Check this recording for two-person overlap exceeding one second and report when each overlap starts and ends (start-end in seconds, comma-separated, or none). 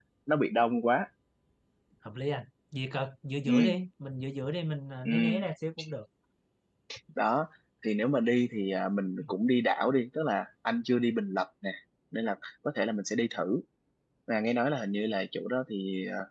none